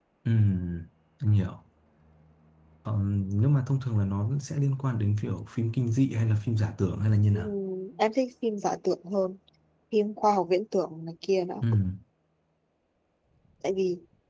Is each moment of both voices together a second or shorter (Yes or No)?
Yes